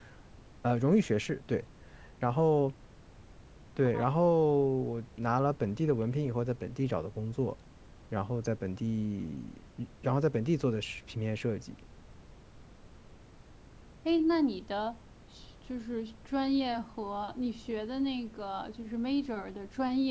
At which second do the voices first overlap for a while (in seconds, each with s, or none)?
none